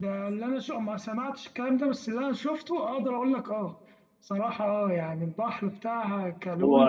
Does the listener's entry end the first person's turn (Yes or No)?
No